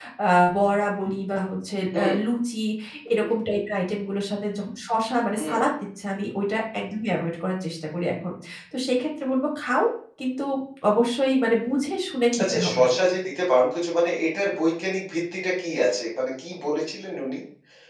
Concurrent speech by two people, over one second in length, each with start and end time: none

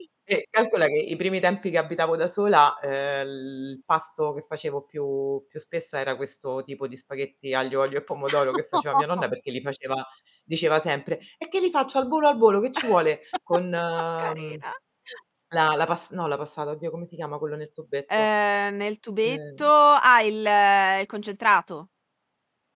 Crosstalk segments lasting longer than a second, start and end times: none

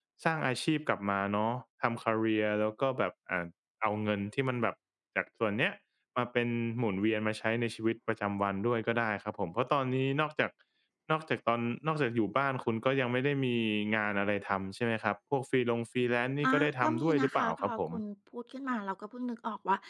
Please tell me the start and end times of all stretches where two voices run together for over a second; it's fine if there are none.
16.4-17.9

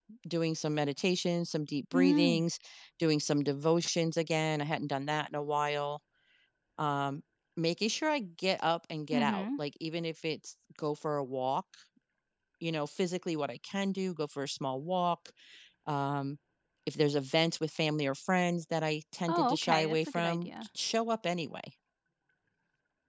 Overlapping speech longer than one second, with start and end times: 19.3-20.5

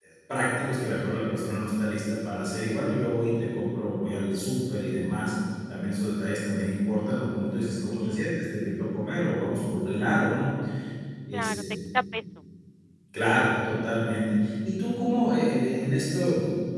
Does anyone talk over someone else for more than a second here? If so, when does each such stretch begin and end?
none

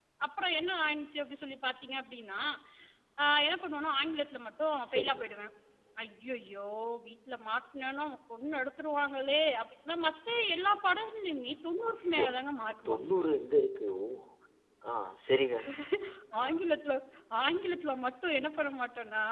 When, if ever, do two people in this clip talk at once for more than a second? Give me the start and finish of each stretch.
none

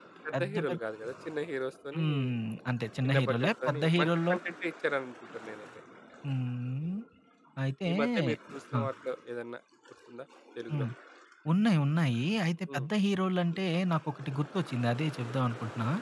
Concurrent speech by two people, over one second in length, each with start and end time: 3.0-4.3

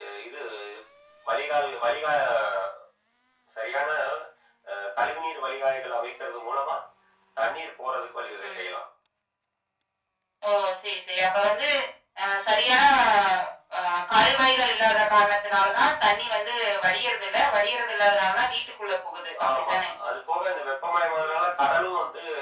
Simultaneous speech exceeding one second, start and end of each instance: none

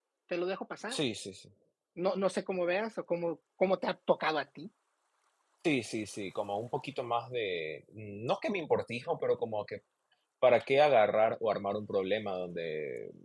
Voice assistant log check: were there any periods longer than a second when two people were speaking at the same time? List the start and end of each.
none

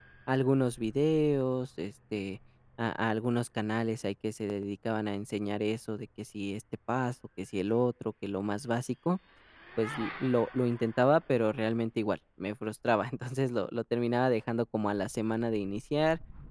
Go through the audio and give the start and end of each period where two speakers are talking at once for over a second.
none

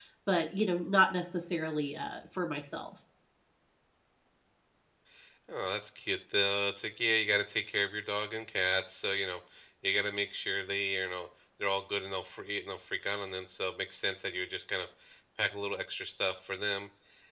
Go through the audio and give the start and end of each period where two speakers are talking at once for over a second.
none

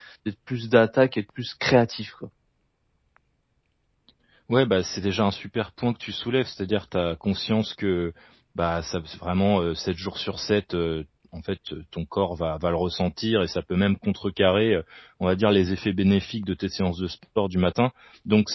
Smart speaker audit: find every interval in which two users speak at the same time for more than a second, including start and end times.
none

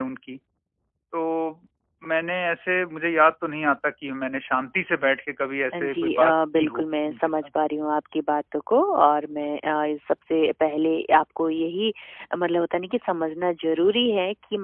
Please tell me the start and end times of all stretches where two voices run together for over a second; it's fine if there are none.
5.8-7.5

